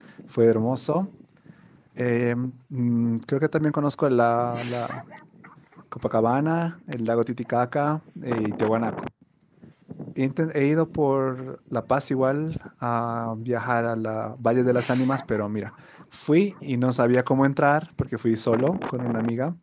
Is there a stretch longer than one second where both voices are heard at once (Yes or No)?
No